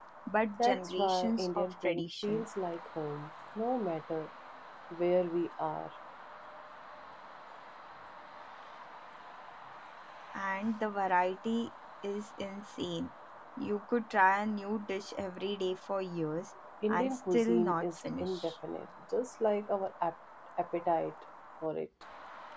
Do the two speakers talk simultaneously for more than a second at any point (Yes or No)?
Yes